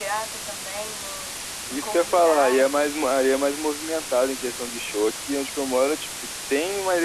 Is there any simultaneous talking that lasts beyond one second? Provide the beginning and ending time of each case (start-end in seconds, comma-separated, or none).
1.7-2.9